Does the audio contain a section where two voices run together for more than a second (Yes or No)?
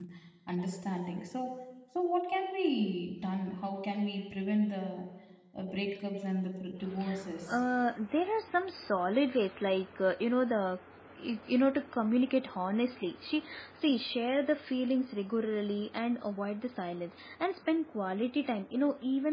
No